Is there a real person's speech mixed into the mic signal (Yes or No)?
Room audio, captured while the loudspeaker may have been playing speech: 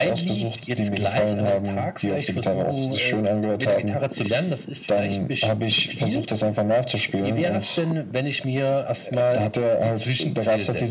No